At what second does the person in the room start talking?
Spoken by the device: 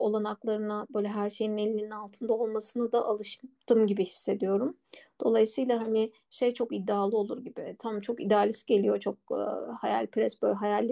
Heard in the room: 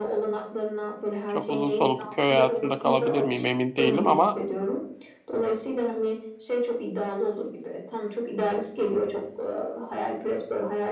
1.3 s

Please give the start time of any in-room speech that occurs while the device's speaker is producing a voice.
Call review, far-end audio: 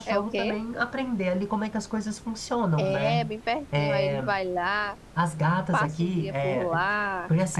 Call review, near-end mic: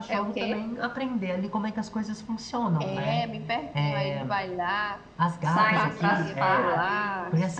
5.4 s

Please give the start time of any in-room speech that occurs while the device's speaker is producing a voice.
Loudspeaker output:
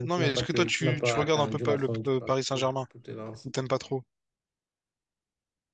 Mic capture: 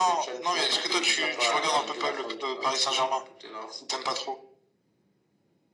none

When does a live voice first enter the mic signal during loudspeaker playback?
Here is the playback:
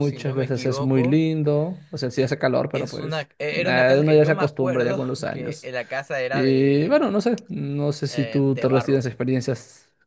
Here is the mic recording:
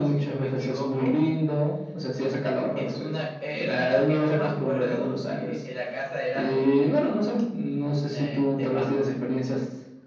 none

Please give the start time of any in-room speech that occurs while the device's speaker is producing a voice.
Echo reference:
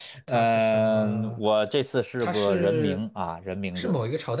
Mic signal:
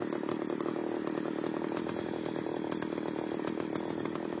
none

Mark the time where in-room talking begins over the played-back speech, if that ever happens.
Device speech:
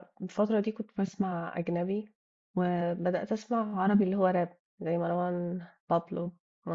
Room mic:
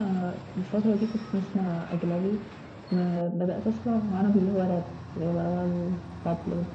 none

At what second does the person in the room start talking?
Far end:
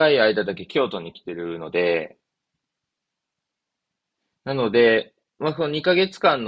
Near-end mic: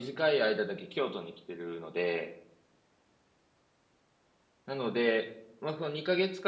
none

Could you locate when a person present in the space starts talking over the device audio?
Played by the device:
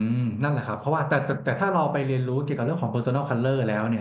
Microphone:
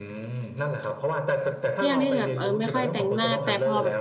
1.8 s

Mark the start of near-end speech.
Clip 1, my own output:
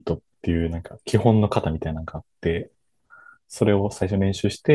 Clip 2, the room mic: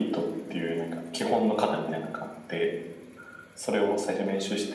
none

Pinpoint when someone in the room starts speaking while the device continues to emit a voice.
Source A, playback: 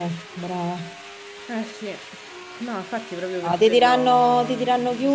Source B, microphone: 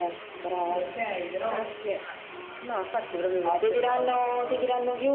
0.6 s

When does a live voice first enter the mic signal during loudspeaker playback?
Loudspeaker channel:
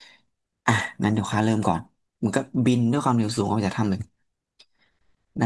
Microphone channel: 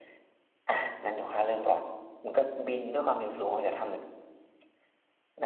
none

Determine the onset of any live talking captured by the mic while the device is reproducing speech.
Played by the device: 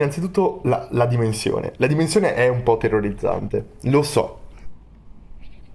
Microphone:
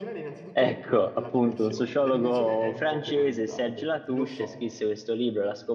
0.5 s

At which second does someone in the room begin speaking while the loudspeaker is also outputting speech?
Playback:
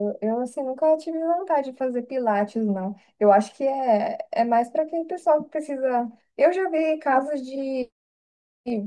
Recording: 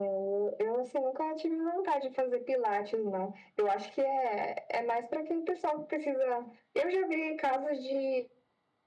none

